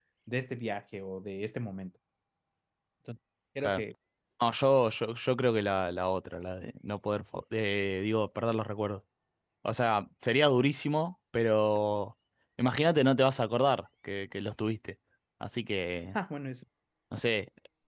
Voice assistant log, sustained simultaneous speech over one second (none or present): none